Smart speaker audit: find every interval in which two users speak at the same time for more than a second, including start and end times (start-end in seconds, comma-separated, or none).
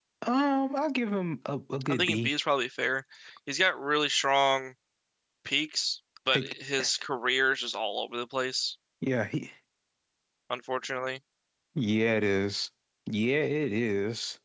none